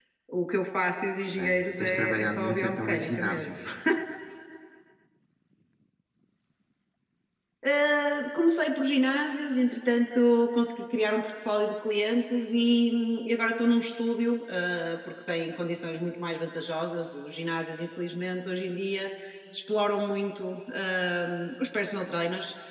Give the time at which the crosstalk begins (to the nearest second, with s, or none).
1 s